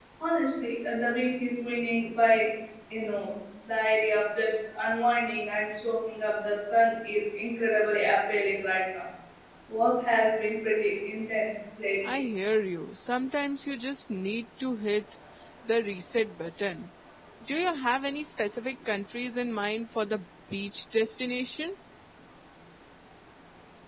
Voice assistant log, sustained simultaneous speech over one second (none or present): none